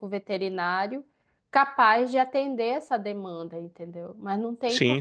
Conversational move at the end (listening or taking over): taking over